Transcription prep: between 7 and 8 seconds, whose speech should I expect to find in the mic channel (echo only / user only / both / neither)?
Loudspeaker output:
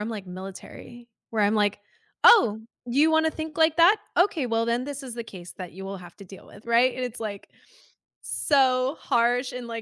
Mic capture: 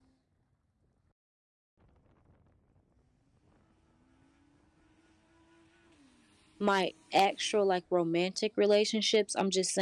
user only